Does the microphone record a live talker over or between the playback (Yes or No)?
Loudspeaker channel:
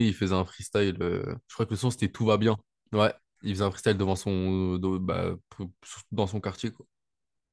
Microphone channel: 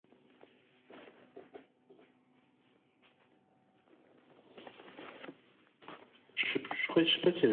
Yes